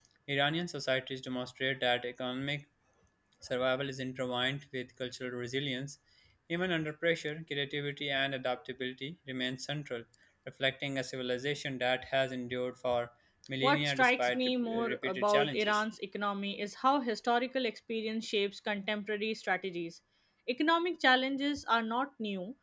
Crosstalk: present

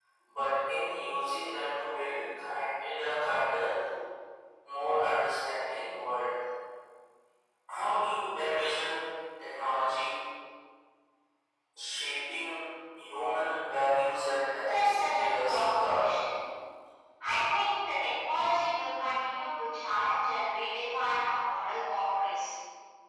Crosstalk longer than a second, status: present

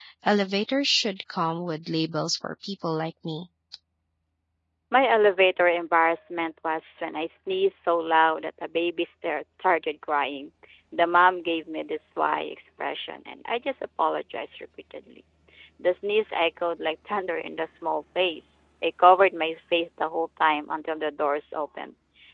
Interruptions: none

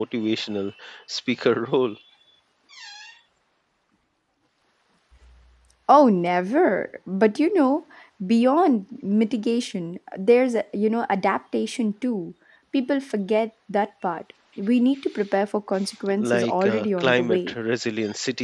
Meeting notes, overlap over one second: present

